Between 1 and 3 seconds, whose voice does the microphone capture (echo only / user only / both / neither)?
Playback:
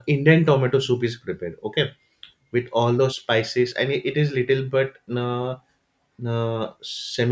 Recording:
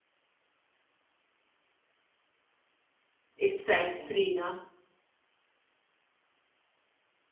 neither